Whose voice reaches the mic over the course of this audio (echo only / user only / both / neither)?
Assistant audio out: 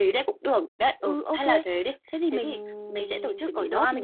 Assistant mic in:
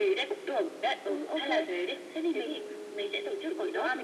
echo only